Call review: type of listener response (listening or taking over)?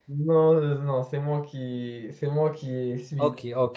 taking over